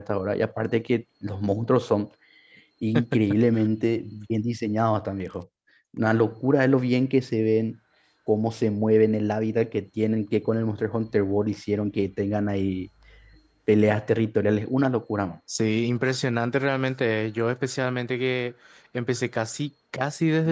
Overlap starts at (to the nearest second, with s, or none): none